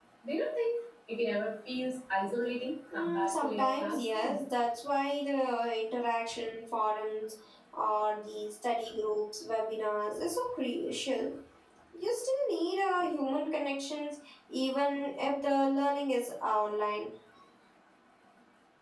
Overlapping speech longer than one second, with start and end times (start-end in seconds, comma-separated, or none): 2.9-4.4